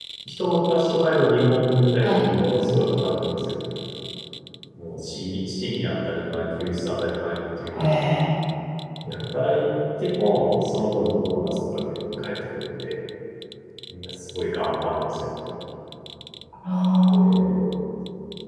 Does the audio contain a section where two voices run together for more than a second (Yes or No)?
No